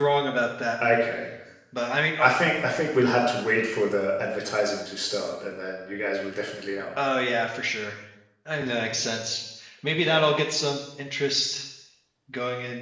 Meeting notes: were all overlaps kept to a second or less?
Yes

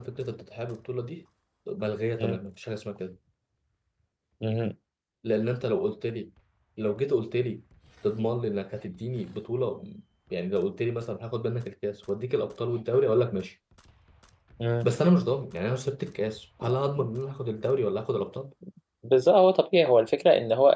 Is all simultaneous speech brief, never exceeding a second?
Yes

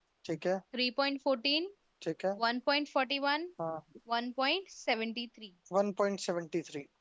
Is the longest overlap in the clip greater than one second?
No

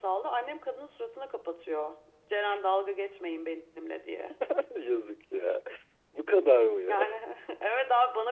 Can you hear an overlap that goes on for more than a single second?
No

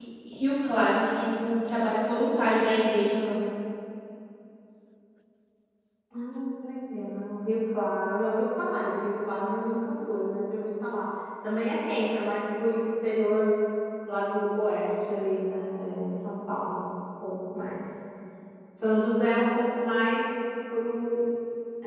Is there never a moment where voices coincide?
Yes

